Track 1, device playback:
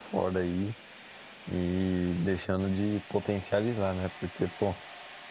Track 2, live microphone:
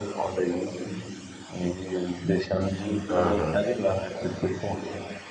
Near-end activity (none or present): present